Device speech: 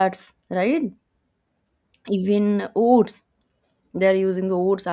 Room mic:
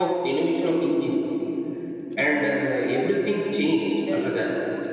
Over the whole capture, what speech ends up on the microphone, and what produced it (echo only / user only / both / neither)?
both